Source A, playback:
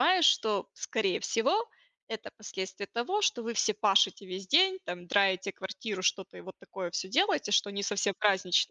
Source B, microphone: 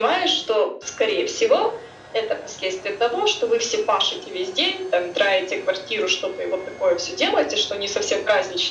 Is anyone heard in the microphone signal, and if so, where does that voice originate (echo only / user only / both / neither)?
echo only